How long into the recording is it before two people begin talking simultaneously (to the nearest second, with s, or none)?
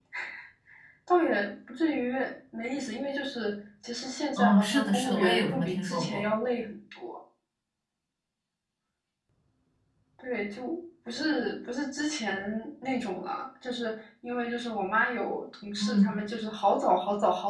4 s